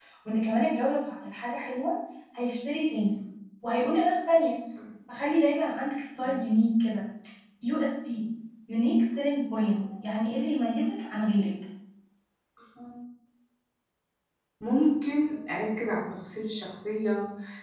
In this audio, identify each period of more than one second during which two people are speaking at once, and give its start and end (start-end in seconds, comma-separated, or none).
none